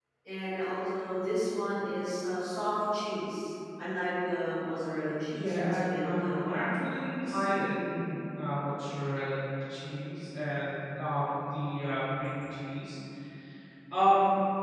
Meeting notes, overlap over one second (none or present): present